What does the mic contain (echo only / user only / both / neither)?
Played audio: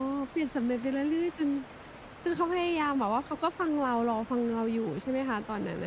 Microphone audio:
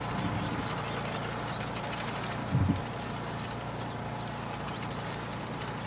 neither